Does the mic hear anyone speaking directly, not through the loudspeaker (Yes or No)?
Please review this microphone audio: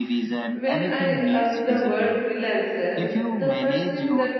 Yes